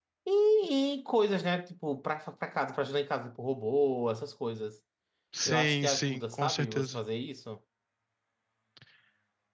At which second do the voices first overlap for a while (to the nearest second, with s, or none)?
5 s